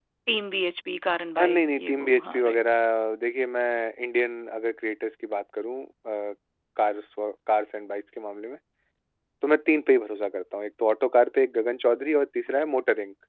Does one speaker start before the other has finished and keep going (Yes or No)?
Yes